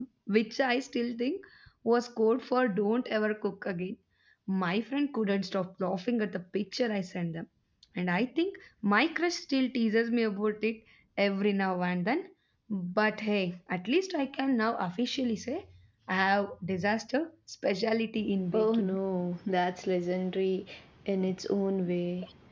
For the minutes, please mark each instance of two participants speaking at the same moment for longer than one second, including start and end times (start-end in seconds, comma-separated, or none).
none